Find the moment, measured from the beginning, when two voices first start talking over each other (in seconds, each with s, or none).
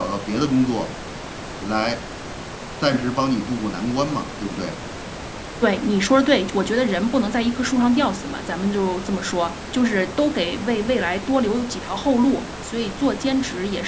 none